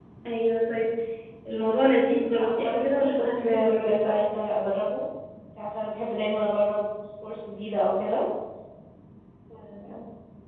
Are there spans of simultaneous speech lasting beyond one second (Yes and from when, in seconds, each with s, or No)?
Yes, from 2.3 s